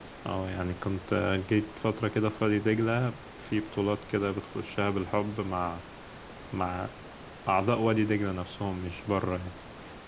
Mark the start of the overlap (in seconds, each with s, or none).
none